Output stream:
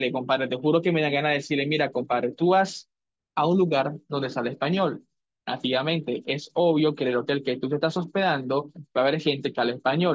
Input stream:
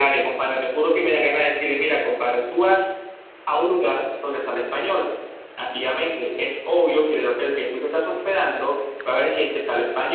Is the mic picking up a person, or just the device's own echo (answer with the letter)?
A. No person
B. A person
A